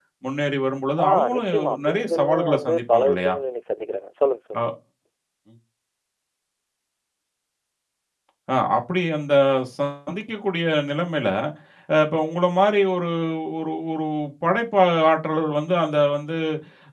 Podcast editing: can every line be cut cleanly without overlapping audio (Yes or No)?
No